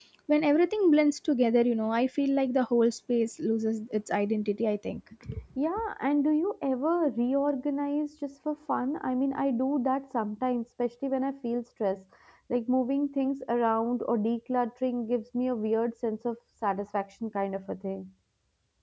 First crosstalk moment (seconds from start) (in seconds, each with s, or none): none